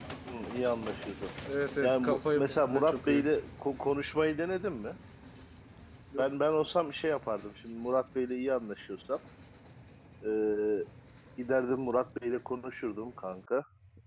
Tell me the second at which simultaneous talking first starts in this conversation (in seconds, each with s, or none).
1.8 s